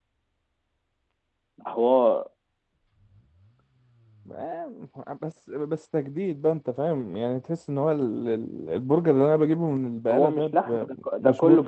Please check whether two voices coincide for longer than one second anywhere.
Yes, from 10.0 s

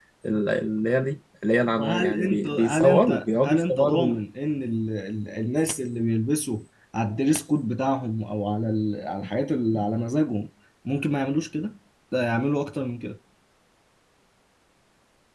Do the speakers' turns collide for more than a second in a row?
Yes, from 1.8 s

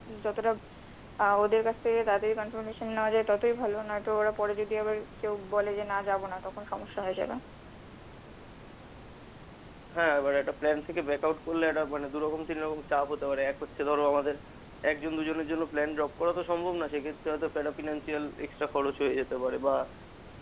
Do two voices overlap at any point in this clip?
No

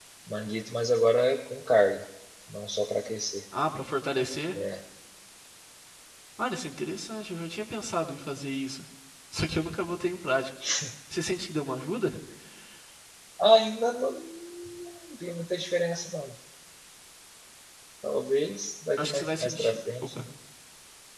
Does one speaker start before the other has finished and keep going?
Yes, from 19.0 s

